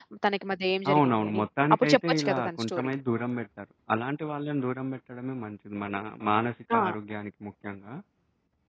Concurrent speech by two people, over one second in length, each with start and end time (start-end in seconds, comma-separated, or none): 0.9-2.9